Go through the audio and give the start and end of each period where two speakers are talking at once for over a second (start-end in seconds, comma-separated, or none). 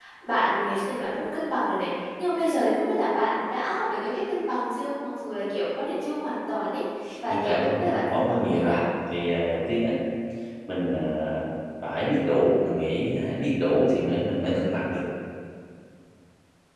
7.3-8.7